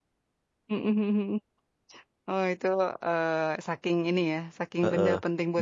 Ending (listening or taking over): taking over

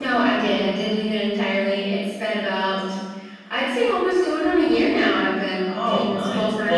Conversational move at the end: taking over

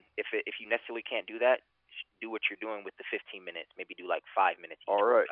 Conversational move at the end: taking over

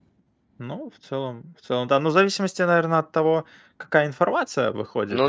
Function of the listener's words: listening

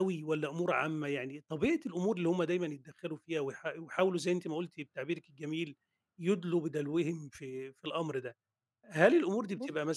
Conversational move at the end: listening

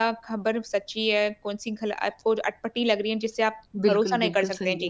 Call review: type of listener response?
taking over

